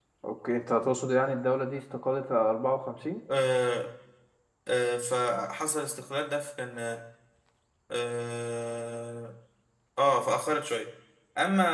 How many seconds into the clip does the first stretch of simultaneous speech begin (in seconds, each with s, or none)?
none